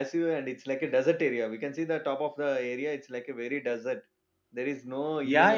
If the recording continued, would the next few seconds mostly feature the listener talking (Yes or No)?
Yes